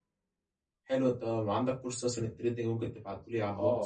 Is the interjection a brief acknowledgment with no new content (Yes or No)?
No